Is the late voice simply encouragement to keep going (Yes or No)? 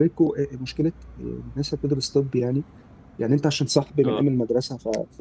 Yes